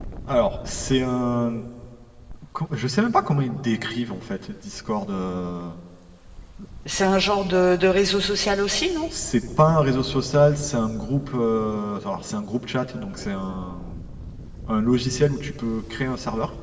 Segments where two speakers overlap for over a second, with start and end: none

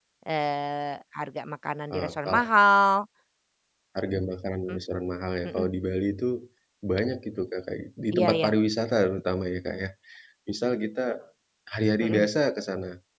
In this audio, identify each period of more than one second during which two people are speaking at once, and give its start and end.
none

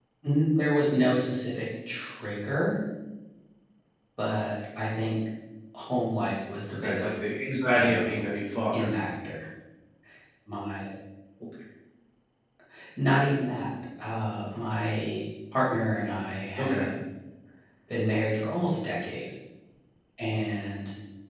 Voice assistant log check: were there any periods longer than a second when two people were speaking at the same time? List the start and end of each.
none

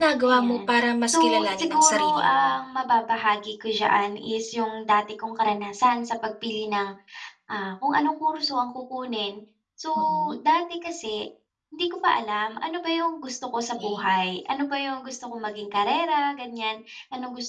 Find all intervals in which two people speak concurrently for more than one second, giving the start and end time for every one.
1.1-2.4

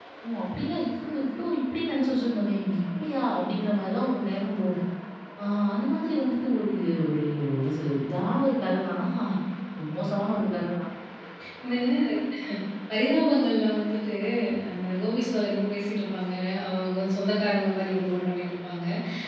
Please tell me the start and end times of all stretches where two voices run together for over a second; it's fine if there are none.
none

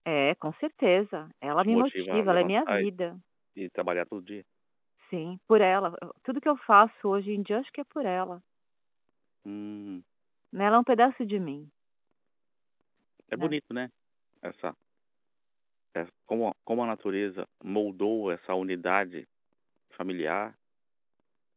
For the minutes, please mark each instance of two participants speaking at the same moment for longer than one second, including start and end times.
1.6-2.8

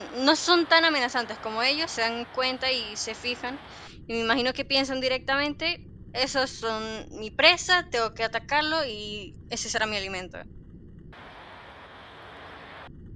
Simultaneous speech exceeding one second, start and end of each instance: none

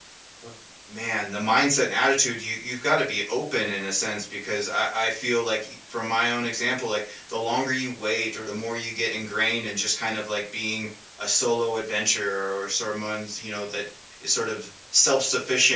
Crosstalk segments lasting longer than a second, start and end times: none

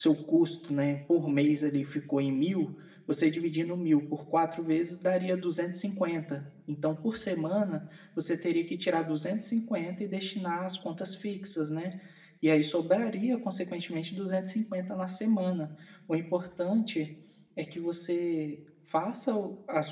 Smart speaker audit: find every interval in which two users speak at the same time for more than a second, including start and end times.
none

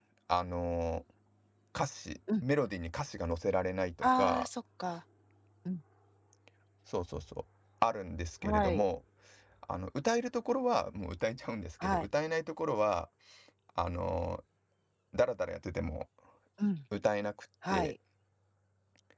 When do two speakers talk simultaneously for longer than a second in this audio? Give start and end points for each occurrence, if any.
none

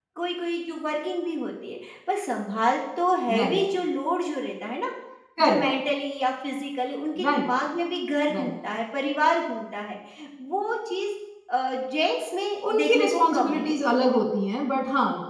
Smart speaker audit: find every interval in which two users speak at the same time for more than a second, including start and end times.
12.7-13.9

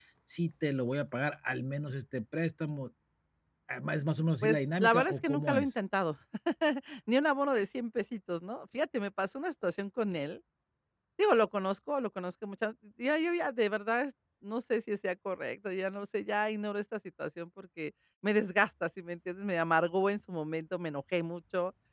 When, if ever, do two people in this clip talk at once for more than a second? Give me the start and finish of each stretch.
4.4-5.8

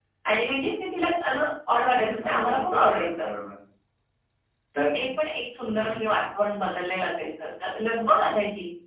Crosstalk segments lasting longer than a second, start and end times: 2.0-3.2

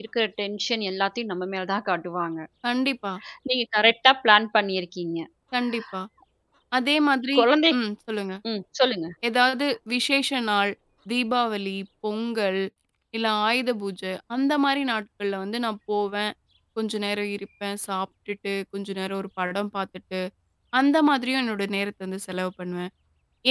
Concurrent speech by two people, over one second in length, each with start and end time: none

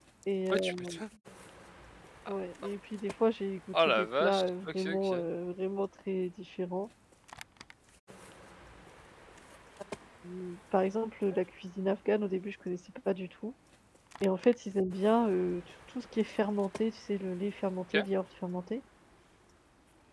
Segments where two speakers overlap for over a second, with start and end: 3.9-5.2

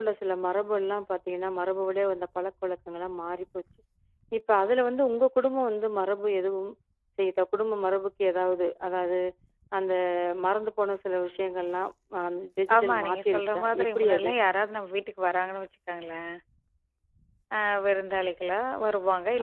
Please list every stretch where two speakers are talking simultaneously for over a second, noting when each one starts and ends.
12.8-14.3

